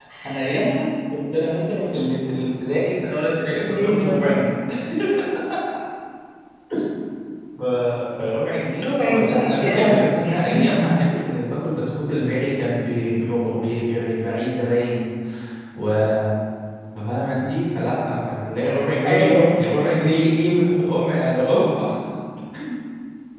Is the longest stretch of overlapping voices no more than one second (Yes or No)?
No